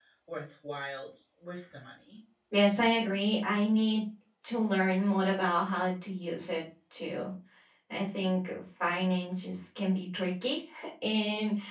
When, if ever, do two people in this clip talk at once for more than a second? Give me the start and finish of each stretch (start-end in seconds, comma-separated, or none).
none